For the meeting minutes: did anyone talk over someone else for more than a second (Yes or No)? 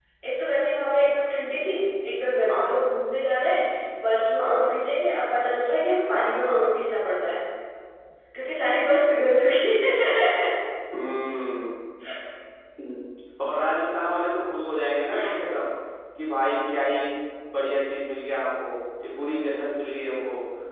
No